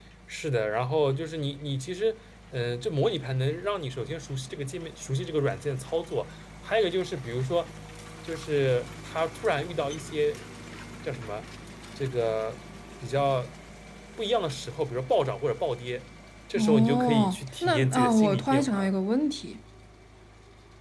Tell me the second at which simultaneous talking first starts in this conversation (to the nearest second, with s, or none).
17 s